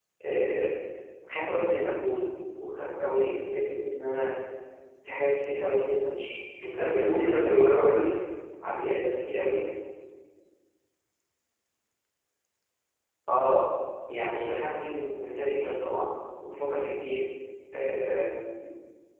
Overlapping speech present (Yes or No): Yes